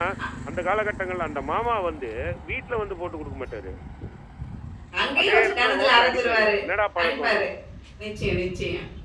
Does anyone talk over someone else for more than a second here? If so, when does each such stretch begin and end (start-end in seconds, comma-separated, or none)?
5.2-6.6